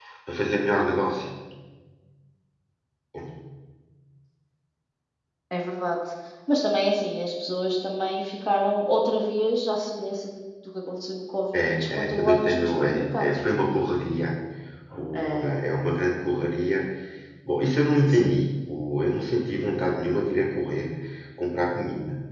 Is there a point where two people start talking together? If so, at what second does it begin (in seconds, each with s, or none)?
11.5 s